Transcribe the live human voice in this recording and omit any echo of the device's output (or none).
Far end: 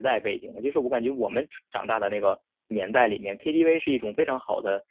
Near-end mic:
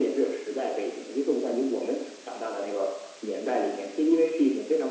none